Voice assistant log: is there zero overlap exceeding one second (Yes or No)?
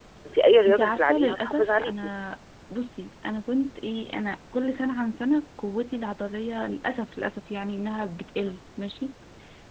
No